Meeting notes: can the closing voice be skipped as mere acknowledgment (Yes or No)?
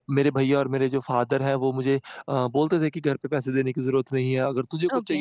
Yes